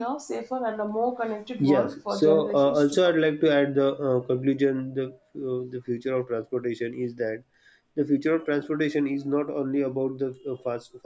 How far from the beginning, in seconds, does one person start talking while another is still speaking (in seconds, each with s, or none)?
1.6 s